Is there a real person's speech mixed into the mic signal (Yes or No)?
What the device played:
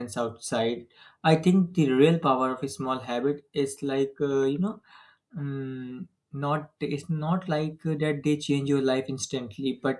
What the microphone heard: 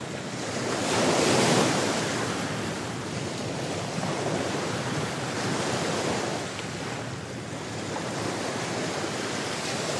No